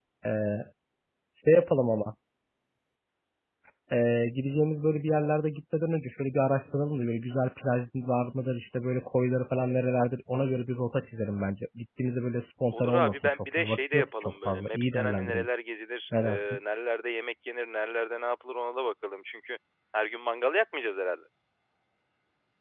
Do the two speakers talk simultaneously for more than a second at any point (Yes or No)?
Yes